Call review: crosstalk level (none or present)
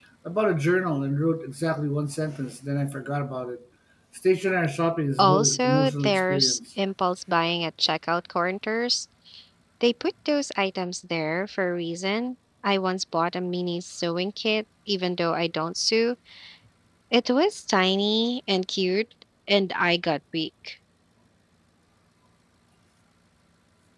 present